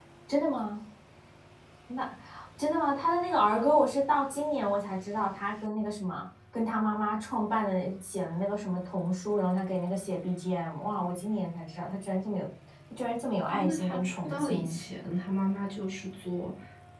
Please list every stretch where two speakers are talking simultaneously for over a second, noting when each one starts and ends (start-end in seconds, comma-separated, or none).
13.5-14.8